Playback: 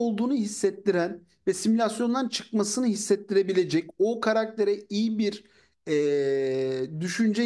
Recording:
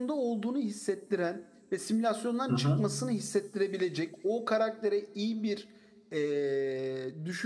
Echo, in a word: present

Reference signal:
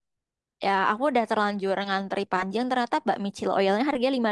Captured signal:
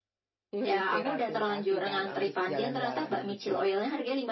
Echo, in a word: present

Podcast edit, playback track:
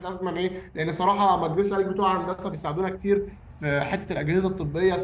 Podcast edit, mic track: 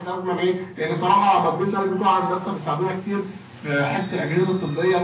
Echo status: present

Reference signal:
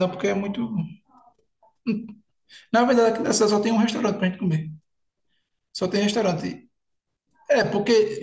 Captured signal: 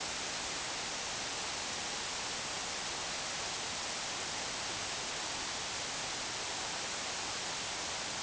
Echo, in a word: none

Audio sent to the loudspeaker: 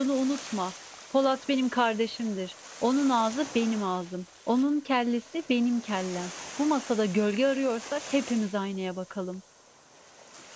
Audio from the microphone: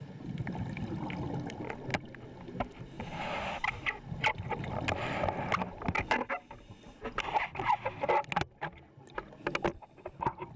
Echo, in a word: none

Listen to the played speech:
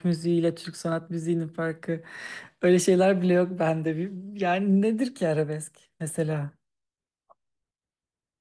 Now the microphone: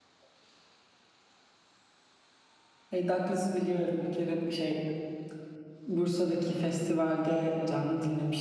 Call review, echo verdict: none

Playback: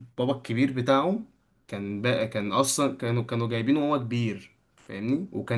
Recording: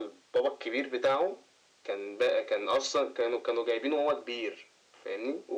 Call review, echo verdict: present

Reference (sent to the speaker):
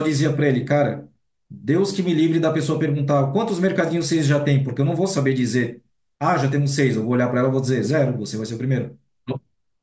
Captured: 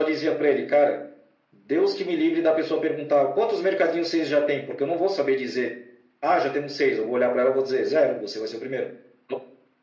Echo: present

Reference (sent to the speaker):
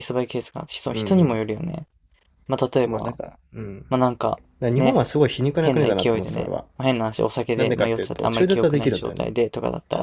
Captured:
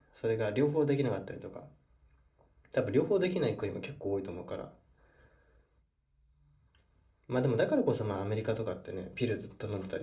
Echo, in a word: none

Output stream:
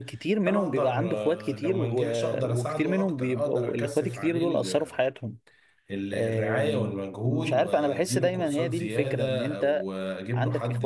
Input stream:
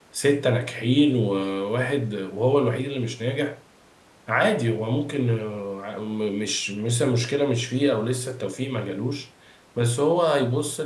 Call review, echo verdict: none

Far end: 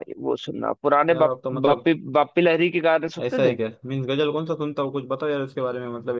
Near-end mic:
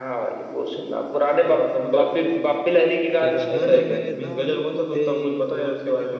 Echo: present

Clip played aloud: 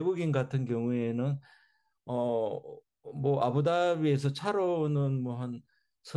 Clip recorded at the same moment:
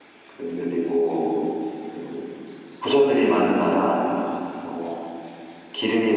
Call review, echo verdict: none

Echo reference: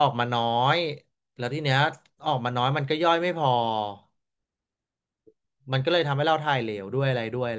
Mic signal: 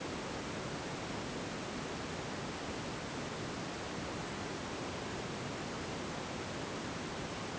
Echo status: none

